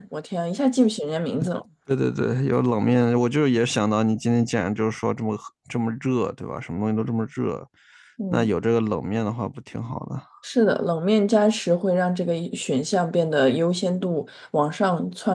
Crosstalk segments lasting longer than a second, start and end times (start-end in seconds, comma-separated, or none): none